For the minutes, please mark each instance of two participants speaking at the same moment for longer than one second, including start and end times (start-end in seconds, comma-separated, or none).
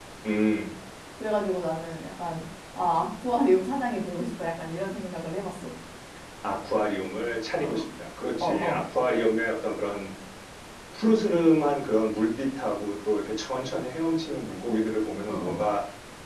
none